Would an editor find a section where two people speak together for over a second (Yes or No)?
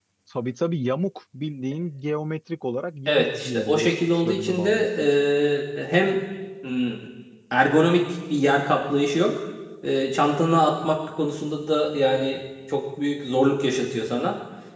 Yes